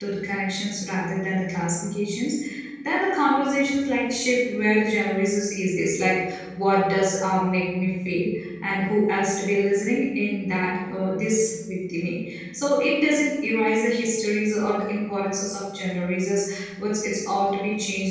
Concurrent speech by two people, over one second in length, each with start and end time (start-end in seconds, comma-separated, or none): none